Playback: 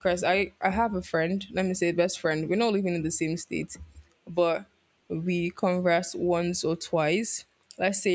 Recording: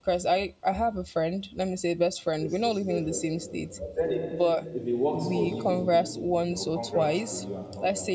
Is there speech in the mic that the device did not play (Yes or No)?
Yes